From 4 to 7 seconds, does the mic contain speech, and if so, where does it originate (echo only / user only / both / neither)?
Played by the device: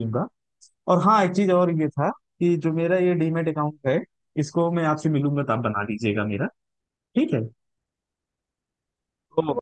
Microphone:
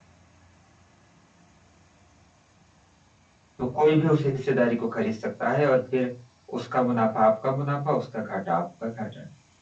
user only